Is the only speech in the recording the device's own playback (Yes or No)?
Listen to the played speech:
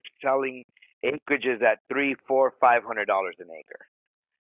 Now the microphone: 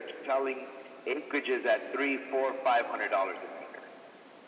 Yes